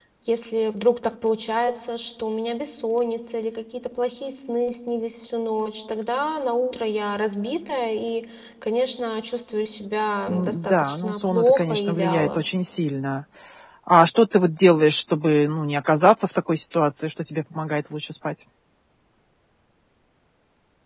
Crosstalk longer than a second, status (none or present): present